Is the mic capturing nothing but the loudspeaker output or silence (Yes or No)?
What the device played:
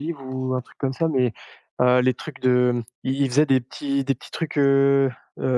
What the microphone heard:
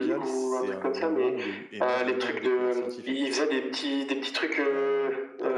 No